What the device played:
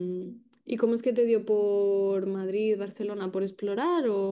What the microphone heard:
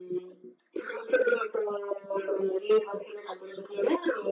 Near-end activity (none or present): none